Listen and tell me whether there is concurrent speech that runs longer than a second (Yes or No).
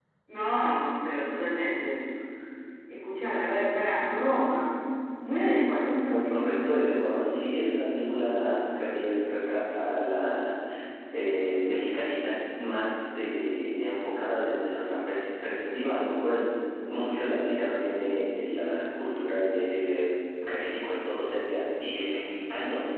No